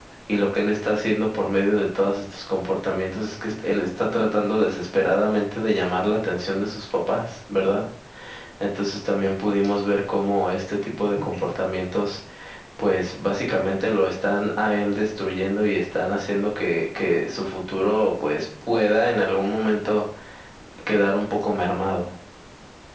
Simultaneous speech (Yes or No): No